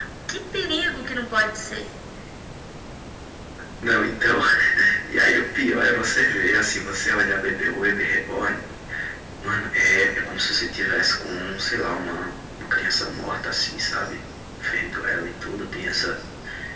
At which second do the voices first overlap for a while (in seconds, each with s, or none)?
none